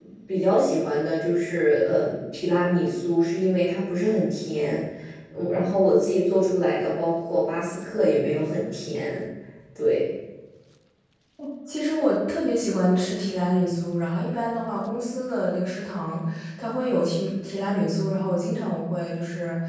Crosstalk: none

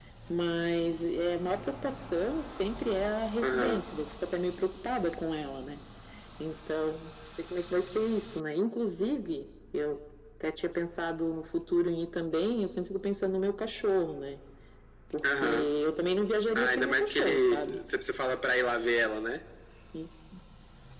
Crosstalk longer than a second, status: present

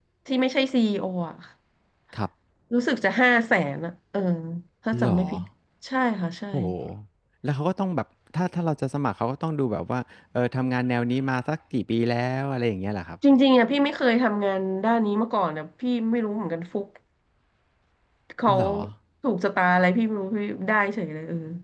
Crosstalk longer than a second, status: none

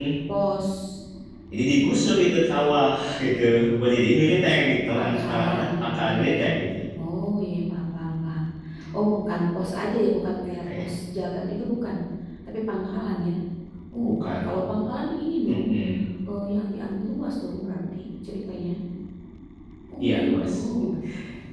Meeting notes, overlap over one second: present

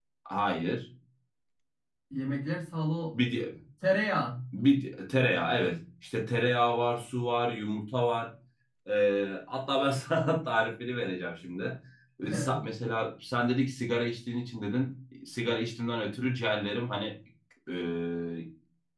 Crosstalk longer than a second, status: none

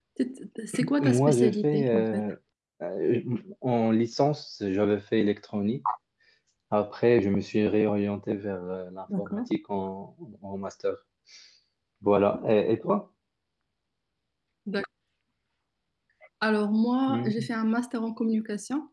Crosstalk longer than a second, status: present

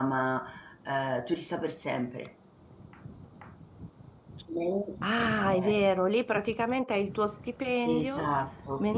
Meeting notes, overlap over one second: none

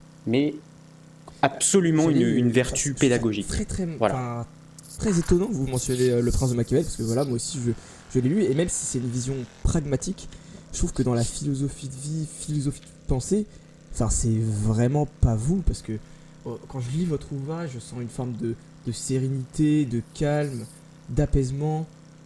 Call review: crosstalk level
present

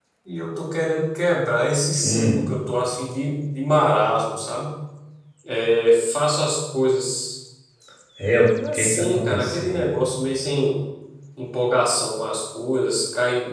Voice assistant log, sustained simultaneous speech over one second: present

